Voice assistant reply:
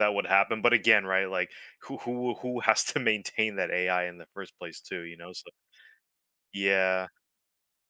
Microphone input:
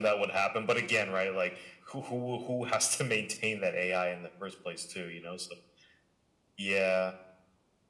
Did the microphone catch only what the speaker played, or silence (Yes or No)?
Yes